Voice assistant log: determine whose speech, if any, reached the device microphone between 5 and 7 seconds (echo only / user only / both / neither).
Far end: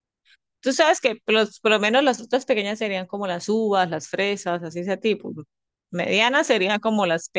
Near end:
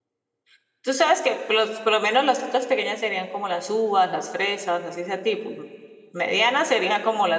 echo only